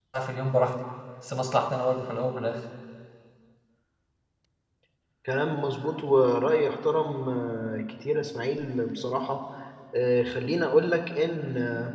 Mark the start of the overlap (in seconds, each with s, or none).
none